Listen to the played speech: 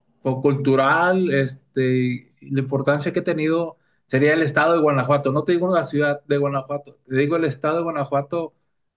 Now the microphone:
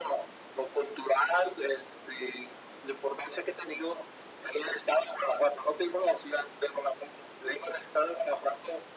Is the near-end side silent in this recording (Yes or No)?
Yes